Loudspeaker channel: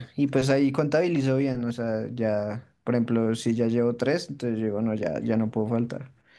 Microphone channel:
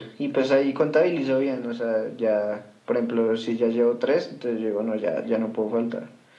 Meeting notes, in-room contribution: none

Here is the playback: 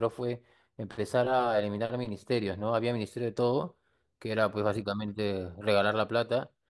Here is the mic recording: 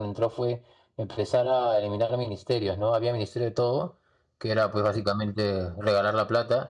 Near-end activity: none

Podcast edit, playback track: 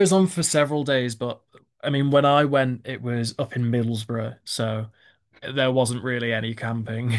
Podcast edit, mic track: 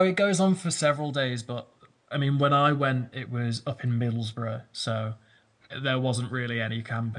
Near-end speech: none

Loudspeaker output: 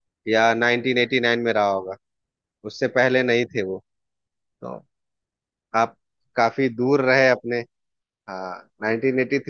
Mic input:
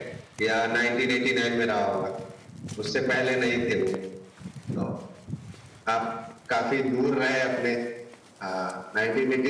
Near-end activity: none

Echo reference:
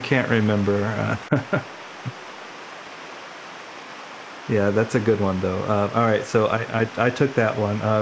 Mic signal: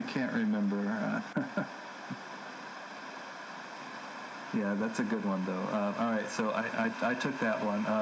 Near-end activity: none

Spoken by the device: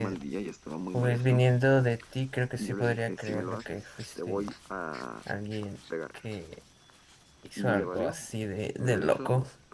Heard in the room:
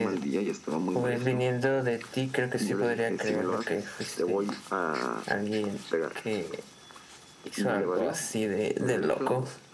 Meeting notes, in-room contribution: none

